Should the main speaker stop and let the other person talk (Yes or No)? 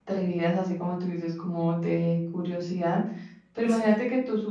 No